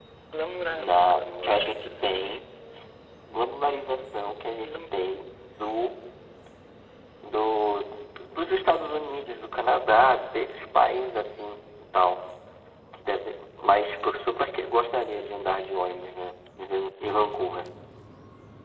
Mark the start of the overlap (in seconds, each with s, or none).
0.8 s